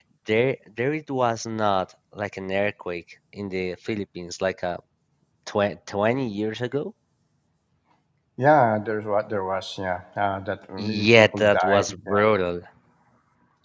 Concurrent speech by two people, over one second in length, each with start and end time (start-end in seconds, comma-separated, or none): 10.8-12.2